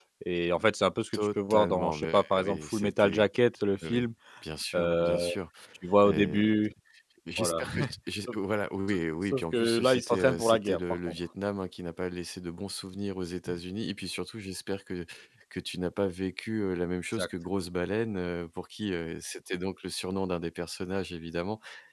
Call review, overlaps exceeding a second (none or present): present